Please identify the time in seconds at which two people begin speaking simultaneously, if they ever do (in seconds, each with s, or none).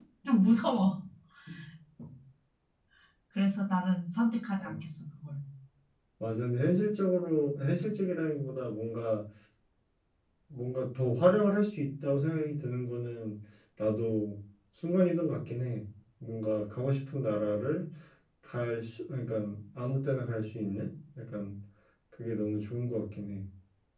none